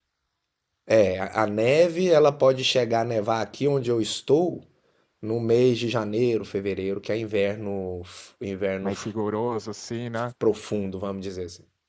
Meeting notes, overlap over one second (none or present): none